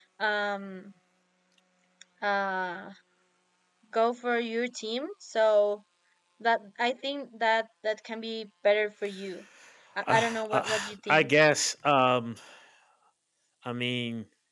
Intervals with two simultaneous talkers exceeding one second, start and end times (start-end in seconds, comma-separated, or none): 10.1-11.3